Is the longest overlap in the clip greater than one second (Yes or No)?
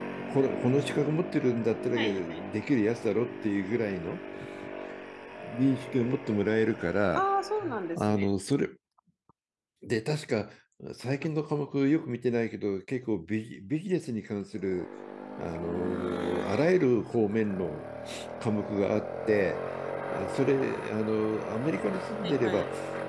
No